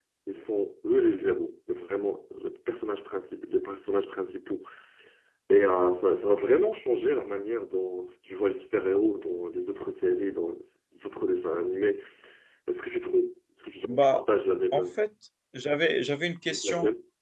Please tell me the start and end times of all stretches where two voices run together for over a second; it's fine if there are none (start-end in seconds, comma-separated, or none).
none